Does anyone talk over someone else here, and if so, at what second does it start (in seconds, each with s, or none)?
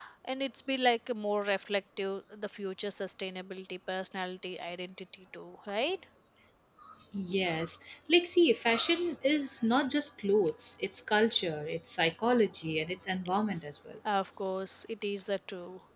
none